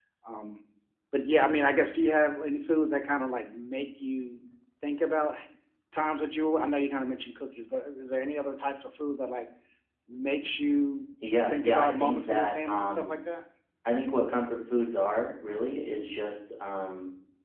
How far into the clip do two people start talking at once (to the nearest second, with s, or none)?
11 s